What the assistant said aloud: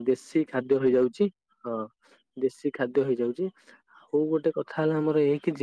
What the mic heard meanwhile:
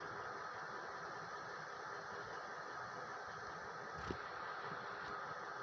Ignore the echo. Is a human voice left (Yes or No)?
No